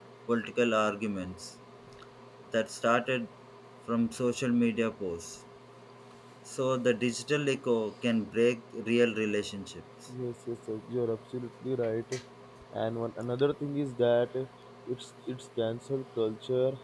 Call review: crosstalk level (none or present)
none